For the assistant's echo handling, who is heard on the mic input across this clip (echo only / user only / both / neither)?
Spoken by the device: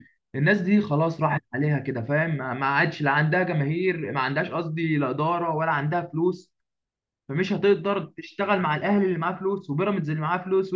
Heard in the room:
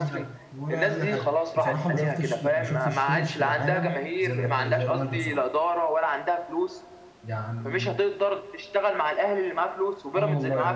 both